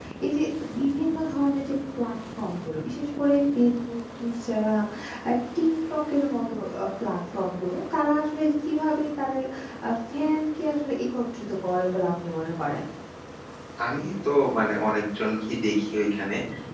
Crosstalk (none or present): none